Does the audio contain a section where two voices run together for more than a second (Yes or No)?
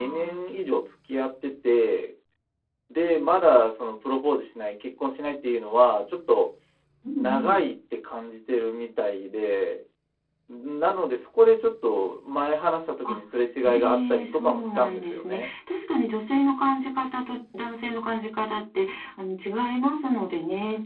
Yes